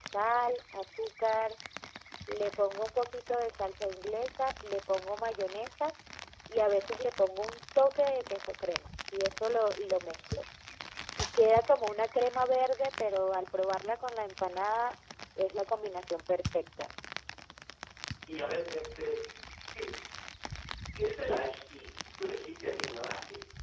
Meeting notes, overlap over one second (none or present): none